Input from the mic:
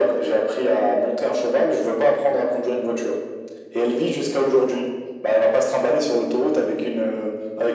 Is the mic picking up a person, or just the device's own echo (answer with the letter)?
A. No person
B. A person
A